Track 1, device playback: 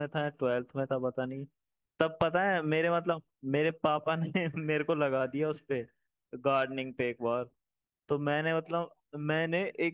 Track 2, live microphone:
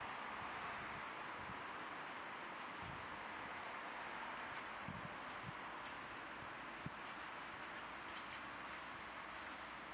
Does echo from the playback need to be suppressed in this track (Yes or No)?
No